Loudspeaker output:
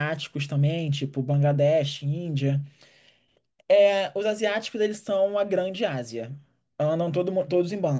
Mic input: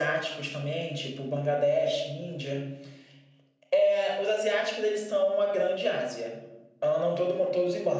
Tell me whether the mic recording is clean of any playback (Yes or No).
No